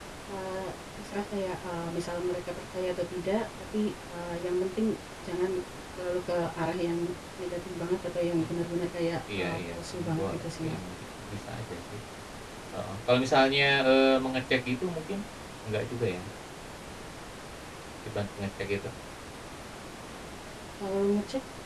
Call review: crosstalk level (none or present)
present